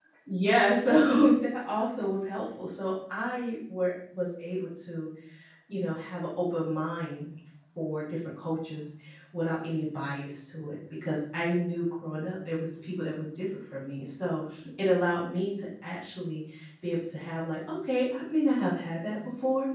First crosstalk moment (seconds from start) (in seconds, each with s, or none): none